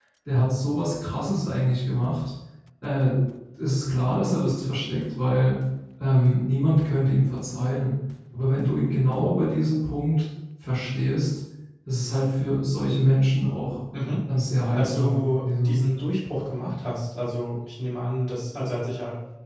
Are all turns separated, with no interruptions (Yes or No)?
No